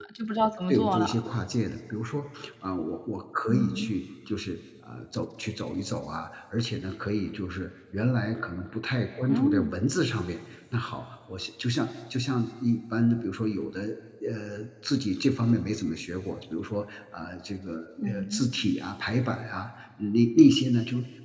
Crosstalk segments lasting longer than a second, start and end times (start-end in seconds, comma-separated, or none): none